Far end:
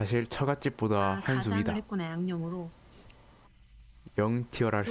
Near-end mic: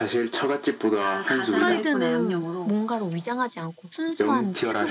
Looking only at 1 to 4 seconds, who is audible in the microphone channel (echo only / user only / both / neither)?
both